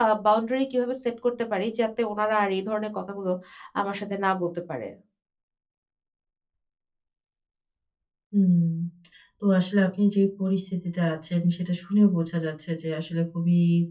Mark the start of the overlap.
none

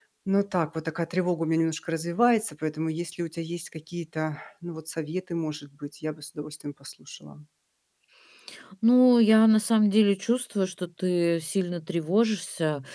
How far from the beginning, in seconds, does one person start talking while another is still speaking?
none

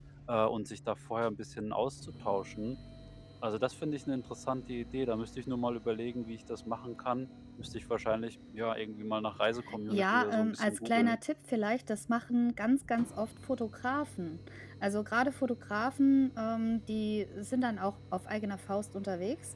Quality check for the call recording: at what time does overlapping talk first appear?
9.7 s

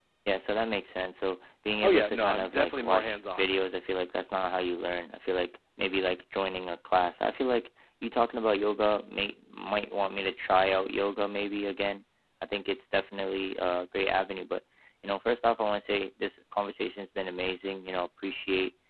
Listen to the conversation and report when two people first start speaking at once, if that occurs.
1.8 s

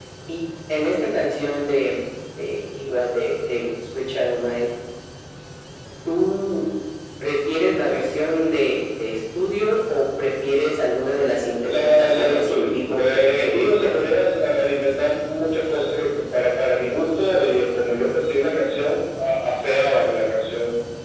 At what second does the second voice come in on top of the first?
11.7 s

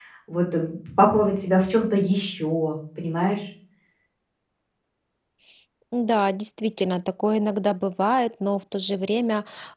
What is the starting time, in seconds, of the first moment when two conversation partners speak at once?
none

